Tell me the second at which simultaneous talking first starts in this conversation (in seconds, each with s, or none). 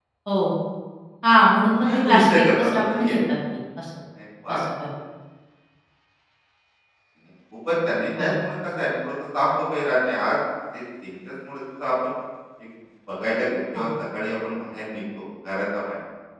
1.9 s